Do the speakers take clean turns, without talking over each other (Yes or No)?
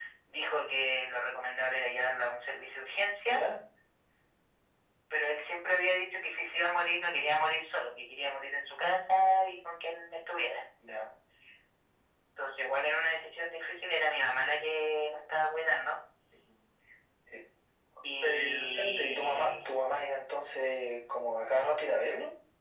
No